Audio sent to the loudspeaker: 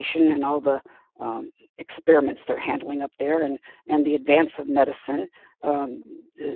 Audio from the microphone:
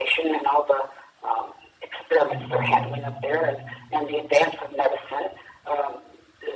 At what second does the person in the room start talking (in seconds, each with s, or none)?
2.3 s